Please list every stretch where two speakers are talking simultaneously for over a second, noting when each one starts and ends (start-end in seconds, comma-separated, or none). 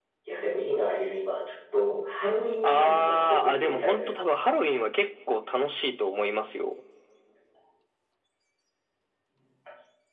2.6-4.3